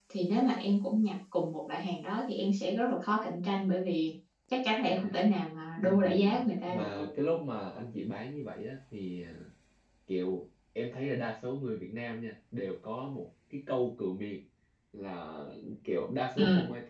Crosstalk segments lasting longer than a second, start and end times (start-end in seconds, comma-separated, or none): 5.8-7.1